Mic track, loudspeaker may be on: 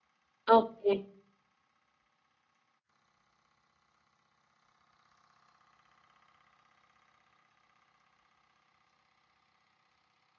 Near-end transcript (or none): ఓకె.